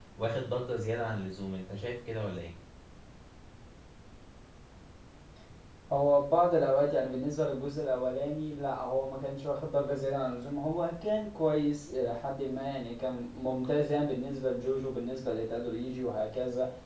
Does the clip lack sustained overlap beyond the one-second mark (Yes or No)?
Yes